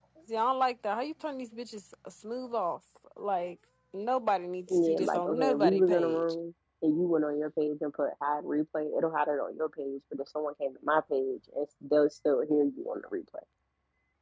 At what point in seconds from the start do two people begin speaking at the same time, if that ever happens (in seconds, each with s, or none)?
4.7 s